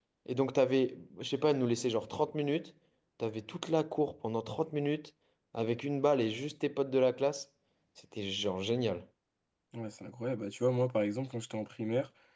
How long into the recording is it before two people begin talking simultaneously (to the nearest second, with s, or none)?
none